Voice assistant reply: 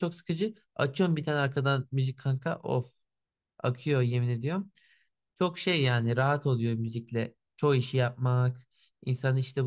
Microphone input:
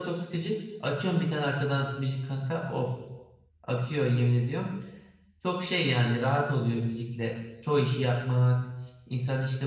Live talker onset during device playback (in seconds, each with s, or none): none